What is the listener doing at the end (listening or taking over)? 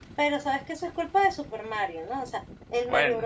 listening